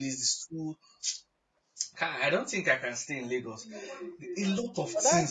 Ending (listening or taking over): taking over